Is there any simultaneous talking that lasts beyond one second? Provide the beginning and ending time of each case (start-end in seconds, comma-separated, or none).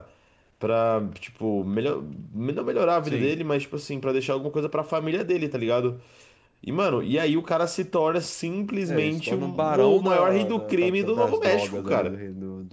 8.8-12.2